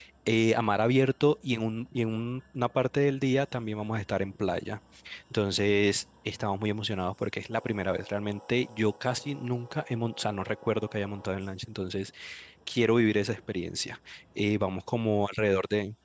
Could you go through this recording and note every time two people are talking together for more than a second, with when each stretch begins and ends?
none

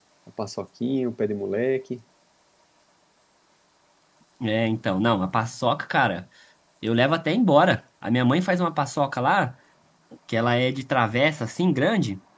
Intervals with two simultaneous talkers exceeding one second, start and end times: none

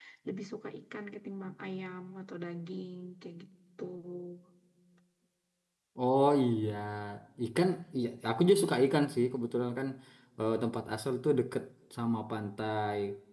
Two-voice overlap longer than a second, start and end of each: none

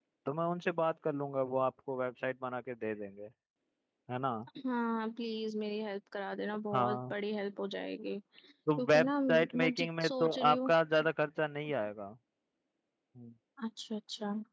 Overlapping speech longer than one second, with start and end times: 8.8-10.7

